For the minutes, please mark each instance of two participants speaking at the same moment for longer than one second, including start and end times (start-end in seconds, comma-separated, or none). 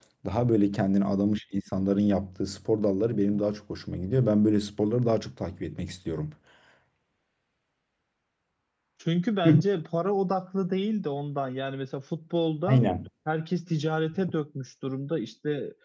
none